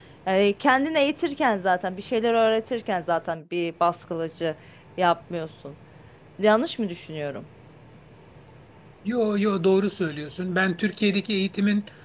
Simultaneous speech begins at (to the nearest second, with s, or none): none